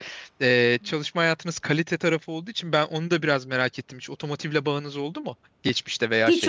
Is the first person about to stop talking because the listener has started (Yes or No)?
Yes